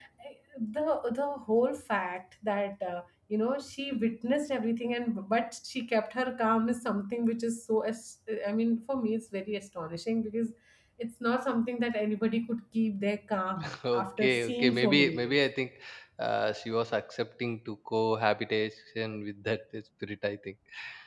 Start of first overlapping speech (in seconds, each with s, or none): 13.6 s